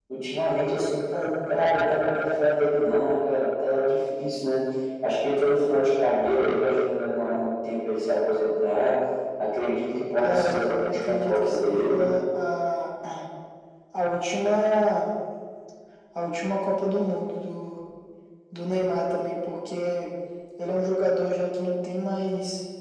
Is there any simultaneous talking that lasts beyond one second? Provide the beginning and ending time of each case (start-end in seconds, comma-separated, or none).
10.2-12.0